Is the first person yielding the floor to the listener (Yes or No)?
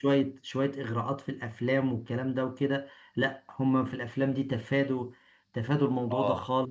Yes